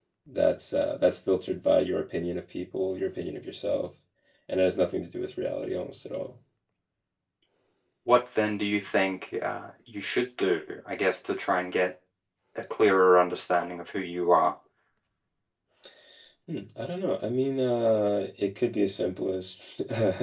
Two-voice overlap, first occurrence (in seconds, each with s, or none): none